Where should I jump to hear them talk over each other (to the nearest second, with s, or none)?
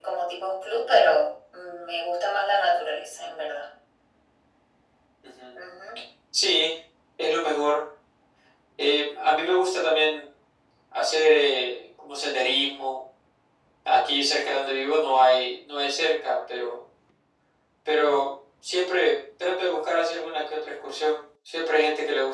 none